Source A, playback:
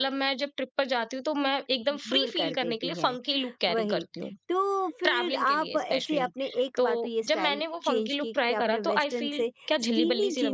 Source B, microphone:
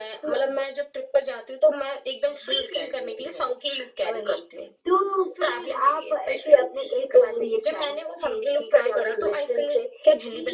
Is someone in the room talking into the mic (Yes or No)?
No